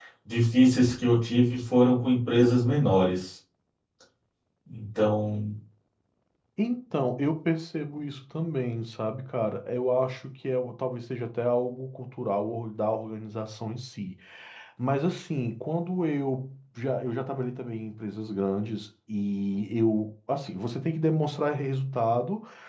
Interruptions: none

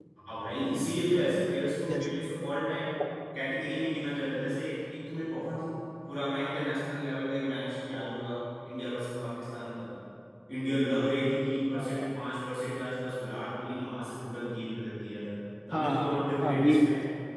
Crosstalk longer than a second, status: present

